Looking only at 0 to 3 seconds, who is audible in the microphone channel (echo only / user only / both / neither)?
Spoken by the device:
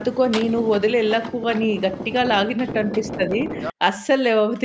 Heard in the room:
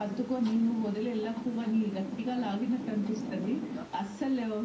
echo only